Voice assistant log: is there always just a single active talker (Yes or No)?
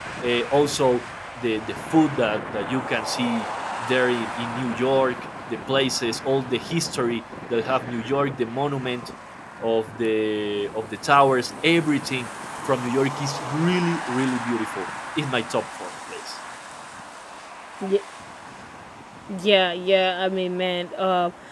Yes